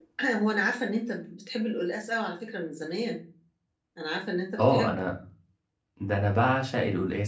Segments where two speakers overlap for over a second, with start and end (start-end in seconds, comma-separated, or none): none